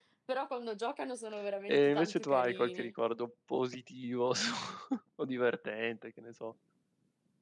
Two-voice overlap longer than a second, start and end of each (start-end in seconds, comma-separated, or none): 1.7-2.9